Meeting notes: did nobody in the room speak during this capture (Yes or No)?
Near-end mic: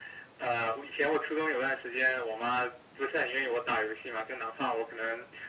Yes